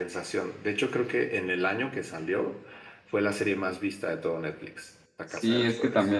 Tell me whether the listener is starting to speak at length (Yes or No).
Yes